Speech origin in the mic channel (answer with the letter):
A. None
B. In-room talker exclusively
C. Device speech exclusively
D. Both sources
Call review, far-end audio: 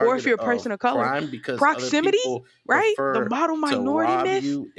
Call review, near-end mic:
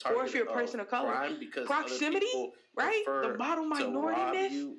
C